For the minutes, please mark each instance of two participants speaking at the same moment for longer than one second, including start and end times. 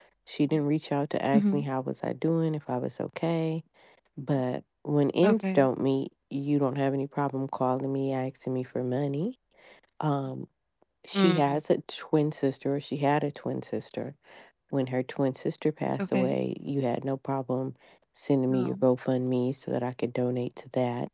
none

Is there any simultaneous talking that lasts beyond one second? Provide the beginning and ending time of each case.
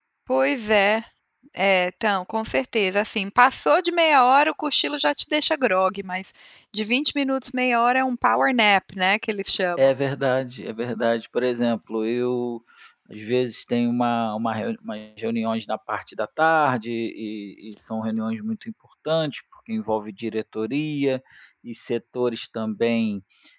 none

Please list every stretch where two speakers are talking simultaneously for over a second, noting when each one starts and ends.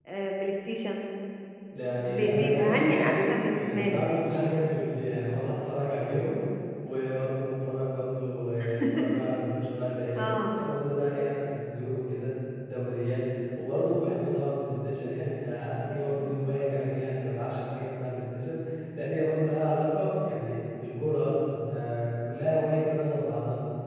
2.0-4.0

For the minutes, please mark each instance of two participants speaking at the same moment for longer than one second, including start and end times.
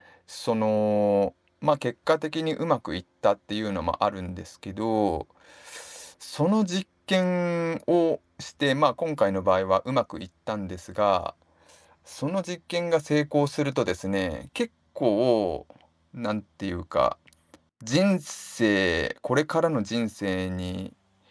none

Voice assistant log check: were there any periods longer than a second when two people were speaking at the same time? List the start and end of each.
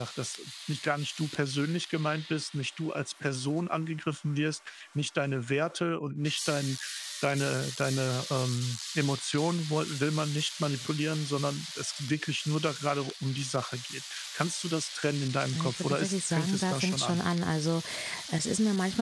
15.5-17.2

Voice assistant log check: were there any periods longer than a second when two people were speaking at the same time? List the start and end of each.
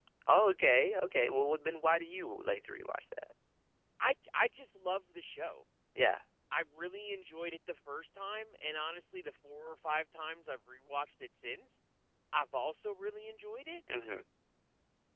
none

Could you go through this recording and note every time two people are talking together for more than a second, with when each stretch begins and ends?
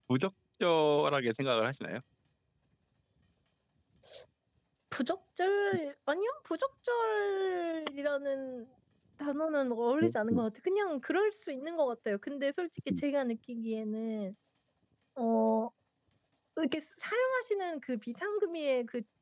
none

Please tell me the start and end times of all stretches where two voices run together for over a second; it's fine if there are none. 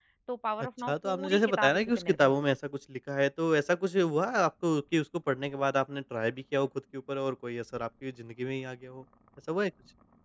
0.9-2.4

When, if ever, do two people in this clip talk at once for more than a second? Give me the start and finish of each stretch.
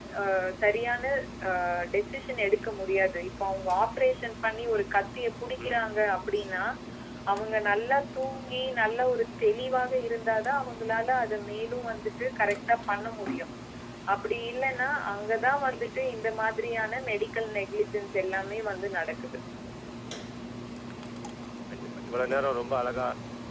none

